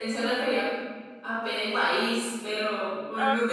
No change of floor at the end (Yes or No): Yes